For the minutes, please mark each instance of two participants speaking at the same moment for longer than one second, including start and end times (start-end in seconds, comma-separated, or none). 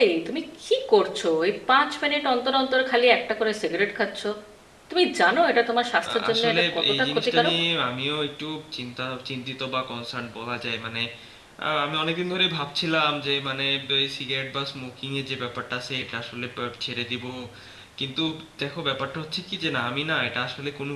6.1-7.5